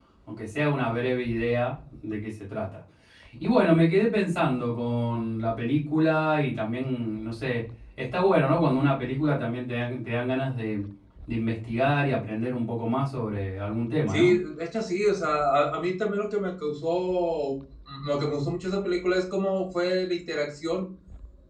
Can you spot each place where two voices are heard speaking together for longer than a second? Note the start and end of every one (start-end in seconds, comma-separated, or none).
none